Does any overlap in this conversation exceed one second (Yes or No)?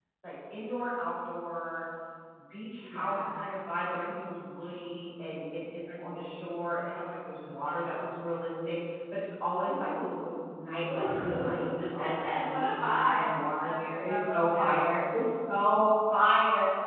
Yes